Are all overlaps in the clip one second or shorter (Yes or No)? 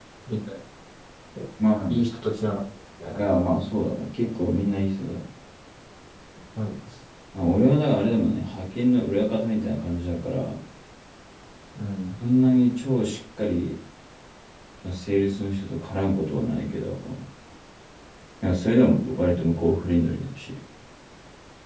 Yes